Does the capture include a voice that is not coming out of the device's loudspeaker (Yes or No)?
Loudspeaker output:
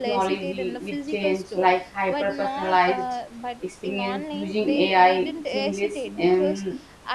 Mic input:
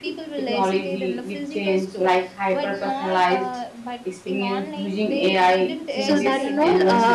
Yes